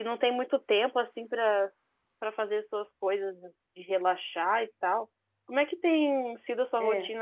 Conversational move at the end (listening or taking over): listening